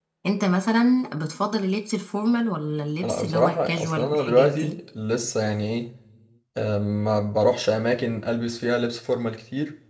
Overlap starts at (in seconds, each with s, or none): 3.0 s